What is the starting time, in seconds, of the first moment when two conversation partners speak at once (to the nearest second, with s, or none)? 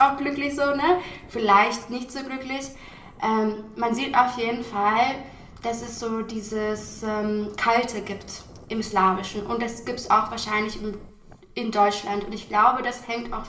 none